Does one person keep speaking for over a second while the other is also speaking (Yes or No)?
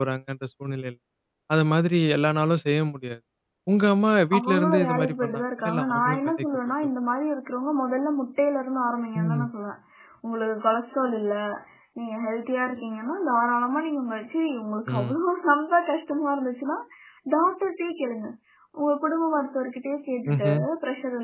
Yes